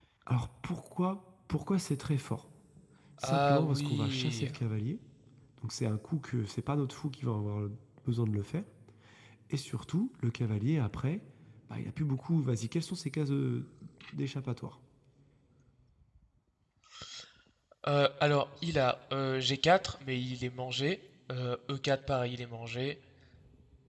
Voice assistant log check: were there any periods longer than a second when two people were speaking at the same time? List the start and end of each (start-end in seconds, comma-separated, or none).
3.2-4.5